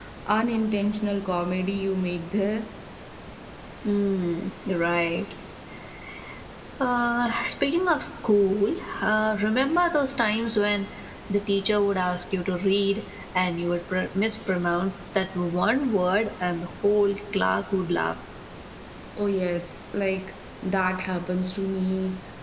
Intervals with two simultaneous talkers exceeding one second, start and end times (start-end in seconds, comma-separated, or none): none